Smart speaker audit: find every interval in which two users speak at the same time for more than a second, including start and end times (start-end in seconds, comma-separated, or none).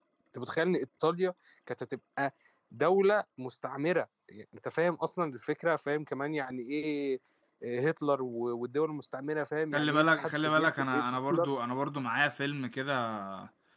9.7-11.5